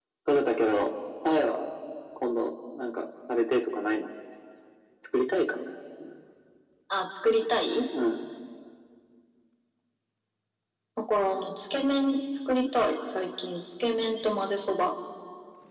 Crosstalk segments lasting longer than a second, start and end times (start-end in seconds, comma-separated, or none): none